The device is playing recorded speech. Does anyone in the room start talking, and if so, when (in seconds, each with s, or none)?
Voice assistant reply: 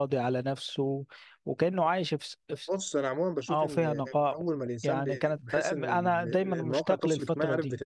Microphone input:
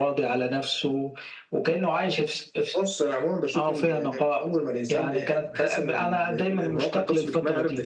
none